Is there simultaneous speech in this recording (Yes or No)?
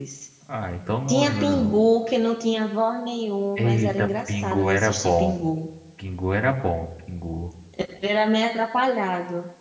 Yes